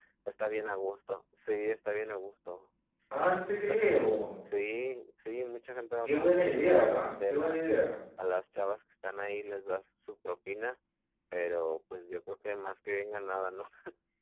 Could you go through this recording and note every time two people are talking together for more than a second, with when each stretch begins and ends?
6.0-7.6

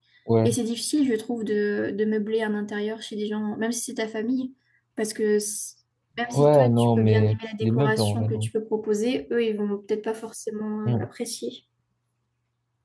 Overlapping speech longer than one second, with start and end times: 6.3-8.5

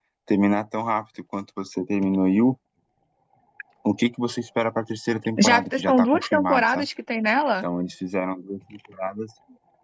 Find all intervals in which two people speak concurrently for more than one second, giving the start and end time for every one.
5.4-6.9

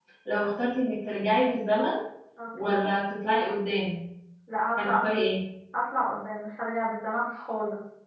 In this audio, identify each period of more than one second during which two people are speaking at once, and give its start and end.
none

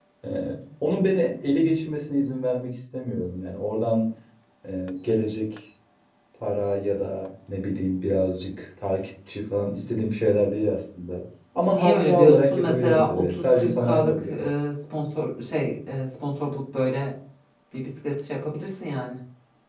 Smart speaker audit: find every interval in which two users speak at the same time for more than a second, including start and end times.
11.7-14.4

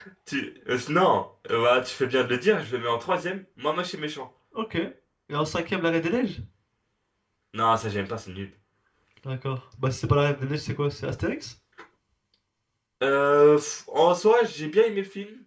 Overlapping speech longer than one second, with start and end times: none

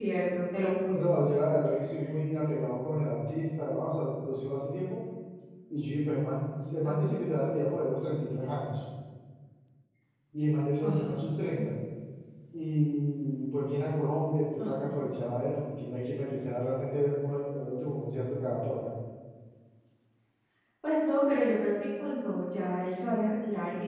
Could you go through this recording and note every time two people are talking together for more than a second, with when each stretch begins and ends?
none

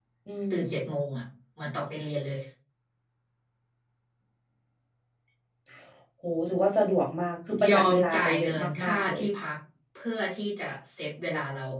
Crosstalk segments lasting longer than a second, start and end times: 7.7-9.2

